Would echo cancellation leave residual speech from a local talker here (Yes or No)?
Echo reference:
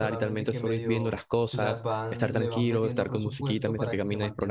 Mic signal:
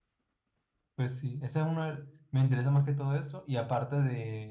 Yes